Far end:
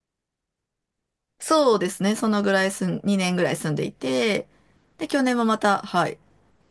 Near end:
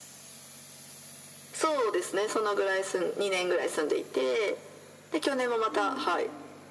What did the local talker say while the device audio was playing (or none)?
あ、うん。